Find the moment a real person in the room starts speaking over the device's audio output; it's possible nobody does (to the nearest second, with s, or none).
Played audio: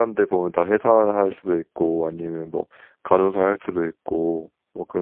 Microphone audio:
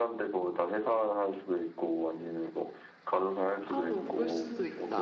4 s